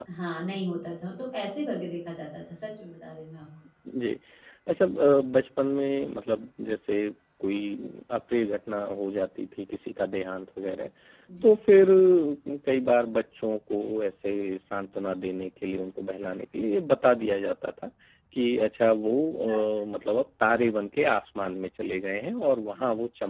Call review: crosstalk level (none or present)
none